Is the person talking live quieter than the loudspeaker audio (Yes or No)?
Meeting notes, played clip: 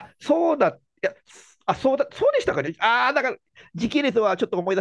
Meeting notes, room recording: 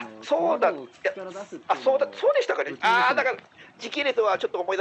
Yes